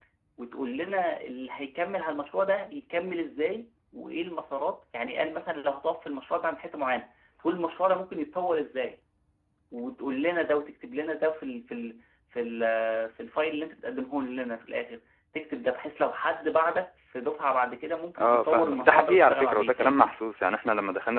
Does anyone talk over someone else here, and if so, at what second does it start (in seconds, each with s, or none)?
18.1 s